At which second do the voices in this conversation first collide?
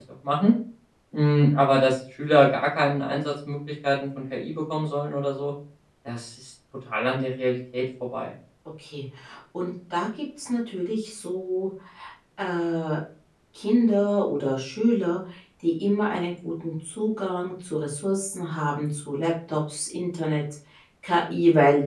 none

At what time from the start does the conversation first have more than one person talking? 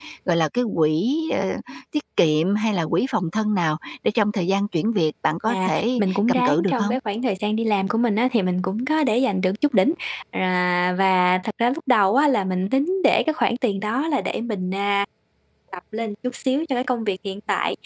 5.5 s

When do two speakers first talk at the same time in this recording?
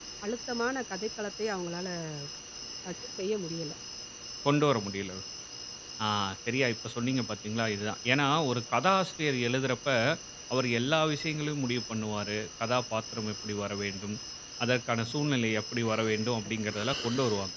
none

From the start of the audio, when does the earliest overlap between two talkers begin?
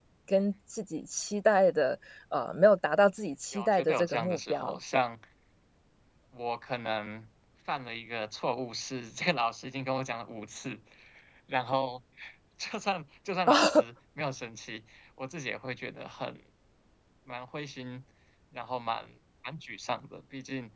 3.5 s

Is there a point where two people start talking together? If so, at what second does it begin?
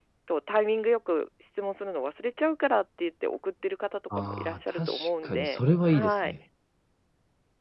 4.1 s

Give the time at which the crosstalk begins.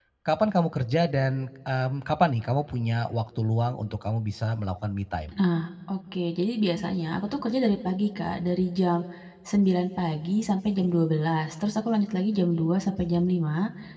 none

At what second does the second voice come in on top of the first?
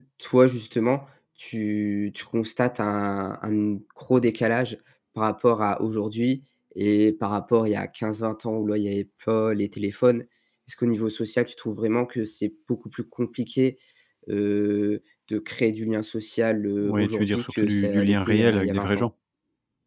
16.8 s

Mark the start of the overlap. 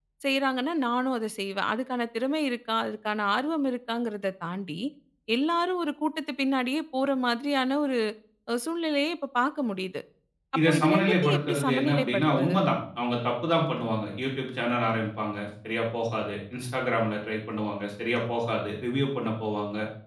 10.7 s

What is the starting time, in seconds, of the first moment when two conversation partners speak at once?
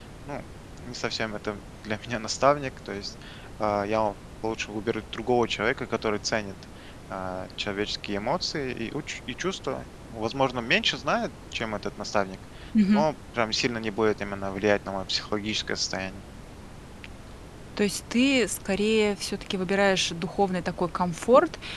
none

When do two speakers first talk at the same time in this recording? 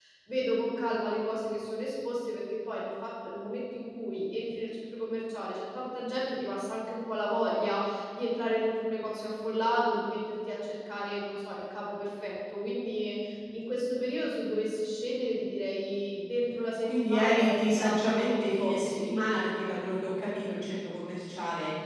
16.8 s

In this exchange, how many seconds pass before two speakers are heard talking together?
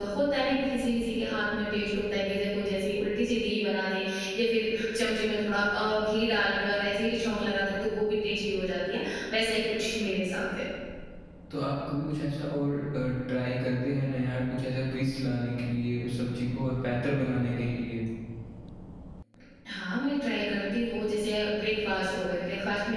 none

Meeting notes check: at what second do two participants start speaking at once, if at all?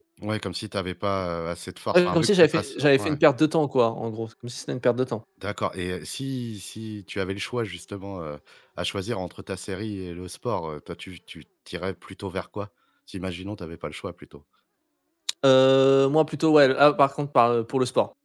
1.9 s

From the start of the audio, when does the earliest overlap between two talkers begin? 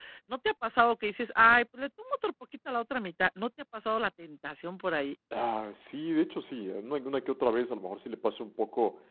none

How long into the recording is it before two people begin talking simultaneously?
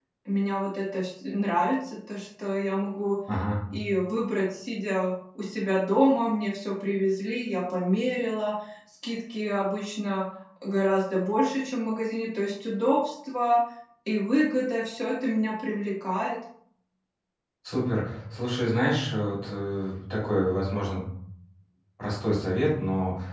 none

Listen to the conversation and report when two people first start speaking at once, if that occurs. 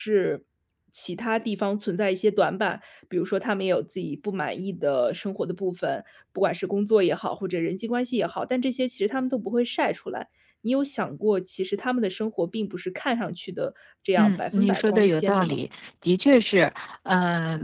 14.2 s

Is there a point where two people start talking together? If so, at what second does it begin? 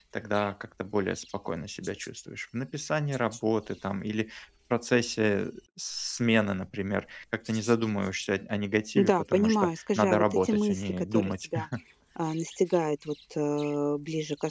9.0 s

